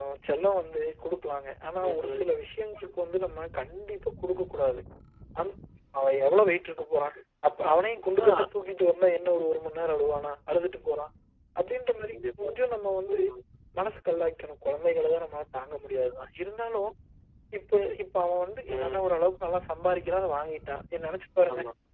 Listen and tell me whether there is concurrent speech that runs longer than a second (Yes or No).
No